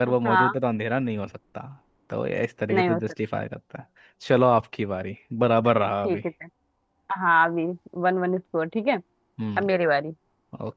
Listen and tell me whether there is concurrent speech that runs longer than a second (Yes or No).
No